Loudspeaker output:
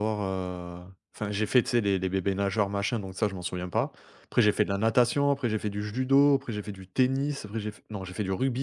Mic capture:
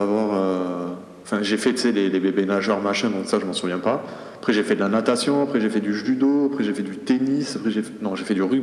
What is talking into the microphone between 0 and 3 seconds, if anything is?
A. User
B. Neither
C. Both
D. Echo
D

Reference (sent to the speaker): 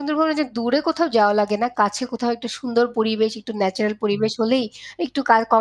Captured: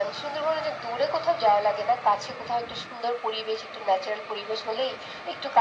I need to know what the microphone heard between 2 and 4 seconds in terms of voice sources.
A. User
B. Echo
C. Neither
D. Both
B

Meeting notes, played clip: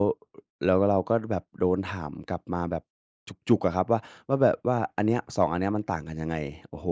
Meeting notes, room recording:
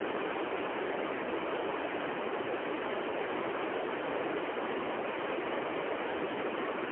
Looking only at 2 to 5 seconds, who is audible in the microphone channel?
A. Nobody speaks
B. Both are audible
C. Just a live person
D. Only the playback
A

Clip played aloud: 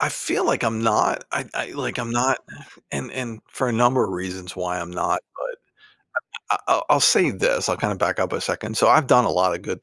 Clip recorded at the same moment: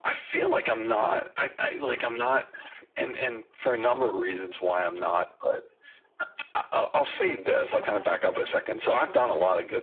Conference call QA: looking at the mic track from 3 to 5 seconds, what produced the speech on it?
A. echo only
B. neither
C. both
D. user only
A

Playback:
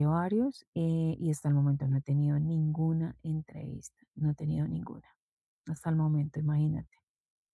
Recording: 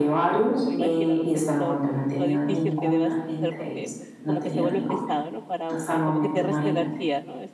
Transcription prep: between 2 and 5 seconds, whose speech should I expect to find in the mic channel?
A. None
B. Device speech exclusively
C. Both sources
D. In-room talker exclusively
C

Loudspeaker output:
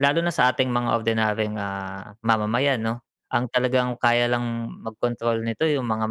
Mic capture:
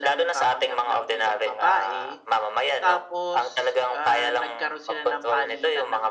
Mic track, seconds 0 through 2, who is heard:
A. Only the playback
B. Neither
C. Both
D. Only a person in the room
C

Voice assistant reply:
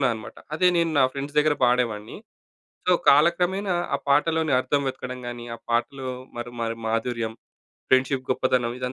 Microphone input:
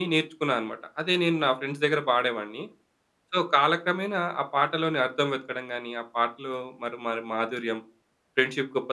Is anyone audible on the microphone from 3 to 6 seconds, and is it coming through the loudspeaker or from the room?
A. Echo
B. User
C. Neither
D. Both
A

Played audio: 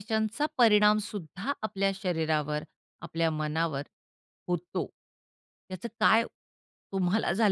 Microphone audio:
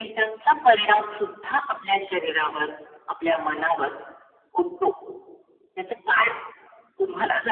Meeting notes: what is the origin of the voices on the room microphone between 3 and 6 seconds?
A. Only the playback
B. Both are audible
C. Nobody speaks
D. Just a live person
A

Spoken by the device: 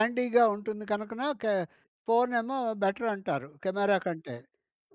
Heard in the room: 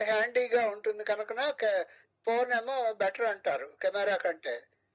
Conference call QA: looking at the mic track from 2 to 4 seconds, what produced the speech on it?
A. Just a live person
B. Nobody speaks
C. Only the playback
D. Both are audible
C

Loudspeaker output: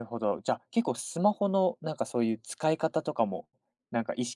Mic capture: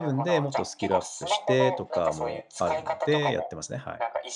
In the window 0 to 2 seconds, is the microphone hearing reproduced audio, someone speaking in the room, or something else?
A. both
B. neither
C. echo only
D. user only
A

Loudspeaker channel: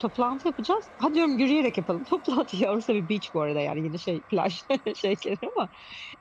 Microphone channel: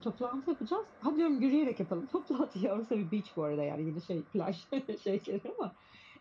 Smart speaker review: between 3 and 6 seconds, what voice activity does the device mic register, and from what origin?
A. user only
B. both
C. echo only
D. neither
C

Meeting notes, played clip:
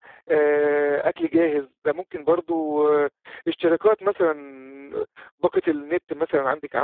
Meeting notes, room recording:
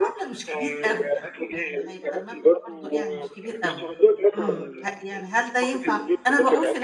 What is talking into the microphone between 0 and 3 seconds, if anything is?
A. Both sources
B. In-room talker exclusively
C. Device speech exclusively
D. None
A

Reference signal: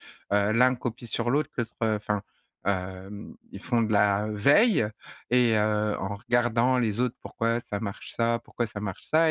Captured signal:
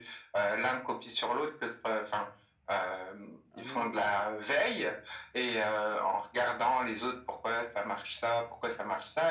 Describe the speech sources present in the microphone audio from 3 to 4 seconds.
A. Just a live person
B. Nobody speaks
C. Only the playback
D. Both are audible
D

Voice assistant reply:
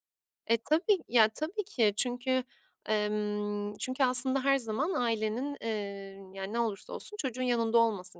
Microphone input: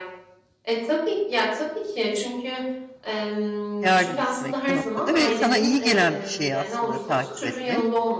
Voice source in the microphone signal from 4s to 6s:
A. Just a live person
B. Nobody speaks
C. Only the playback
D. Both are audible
D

